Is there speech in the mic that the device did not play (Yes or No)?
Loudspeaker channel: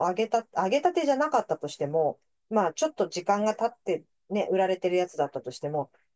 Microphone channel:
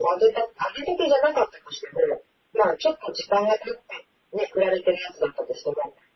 No